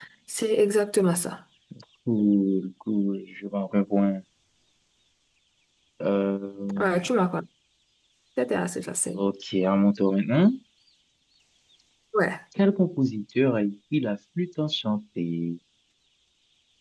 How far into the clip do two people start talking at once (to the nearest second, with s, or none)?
none